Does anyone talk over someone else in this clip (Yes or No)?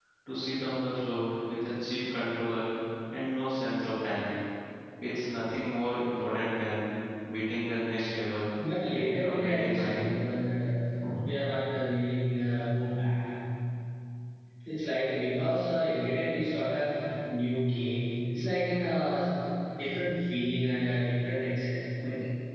Yes